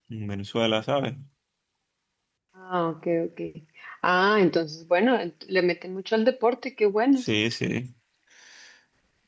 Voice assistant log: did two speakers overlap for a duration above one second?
No

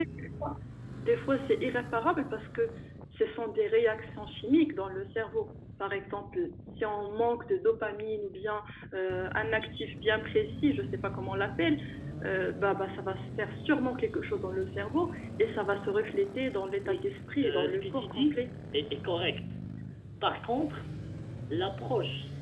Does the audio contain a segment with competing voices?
Yes, from 16.8 s

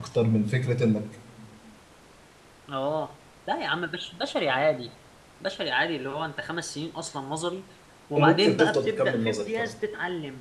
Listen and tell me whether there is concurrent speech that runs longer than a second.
Yes, from 8.2 s

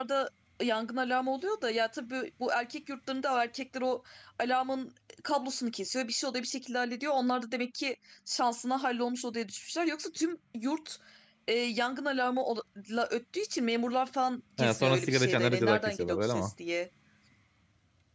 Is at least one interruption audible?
Yes, from 14.6 s

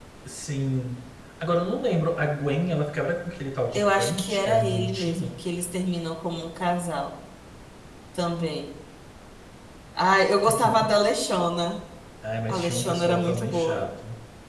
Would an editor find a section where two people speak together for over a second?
Yes, from 3.7 s

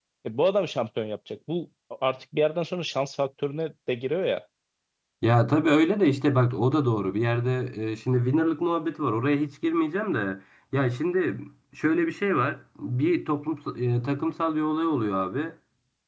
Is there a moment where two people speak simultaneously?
No

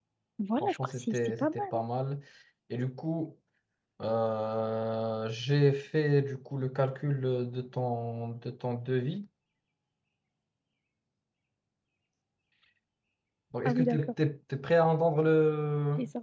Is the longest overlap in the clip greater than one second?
Yes, from 0.6 s

